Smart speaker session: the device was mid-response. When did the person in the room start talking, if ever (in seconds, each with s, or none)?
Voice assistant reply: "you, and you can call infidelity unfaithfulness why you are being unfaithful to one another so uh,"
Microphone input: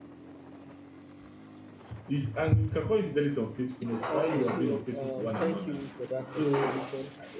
3.9 s